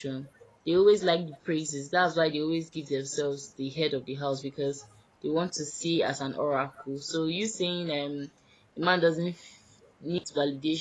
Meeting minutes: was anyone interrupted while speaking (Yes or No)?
No